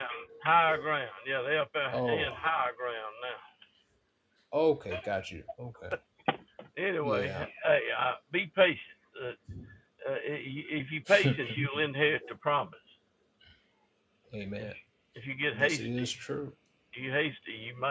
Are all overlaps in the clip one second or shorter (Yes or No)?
Yes